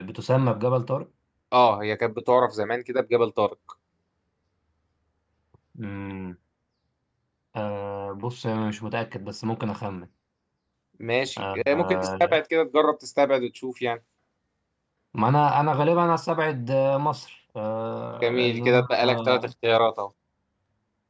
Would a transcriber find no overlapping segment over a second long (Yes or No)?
No